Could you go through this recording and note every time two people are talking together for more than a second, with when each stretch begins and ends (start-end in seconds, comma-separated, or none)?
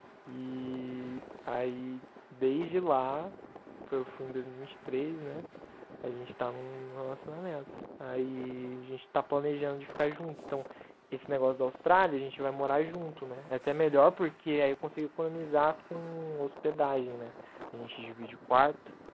none